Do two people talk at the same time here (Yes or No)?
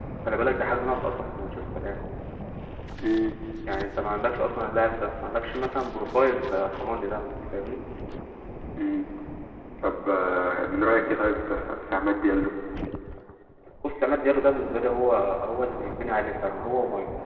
No